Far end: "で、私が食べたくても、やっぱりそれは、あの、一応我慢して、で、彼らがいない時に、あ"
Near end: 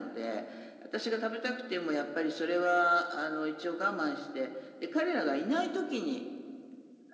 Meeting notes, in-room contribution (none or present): none